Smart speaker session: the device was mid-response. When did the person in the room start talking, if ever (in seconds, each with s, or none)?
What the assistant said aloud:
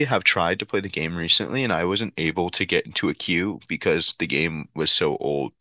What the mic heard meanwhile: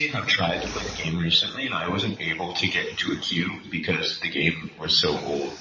none